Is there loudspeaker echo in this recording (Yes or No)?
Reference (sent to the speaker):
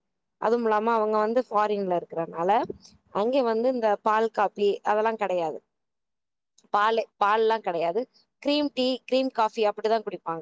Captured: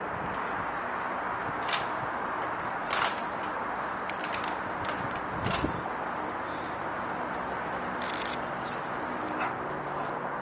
No